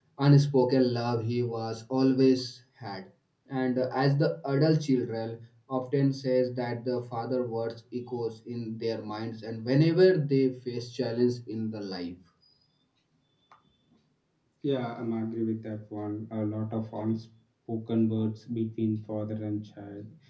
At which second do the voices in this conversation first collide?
none

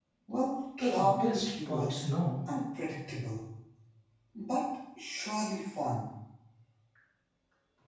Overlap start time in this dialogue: 1 s

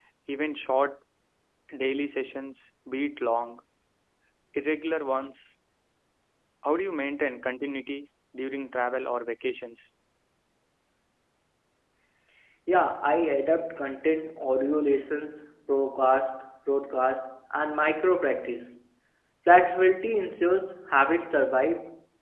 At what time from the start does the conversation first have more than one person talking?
none

